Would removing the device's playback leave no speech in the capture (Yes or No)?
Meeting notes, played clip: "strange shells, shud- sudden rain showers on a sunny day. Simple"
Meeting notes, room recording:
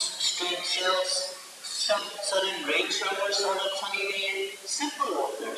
Yes